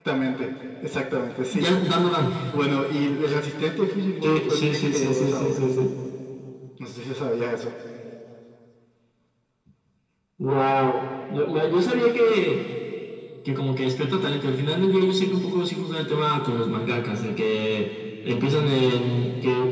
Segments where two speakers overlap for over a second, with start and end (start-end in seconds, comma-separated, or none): 4.2-5.6